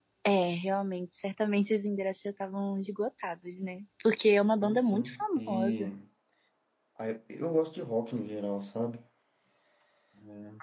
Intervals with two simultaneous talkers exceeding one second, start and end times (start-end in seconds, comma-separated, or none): 4.6-5.9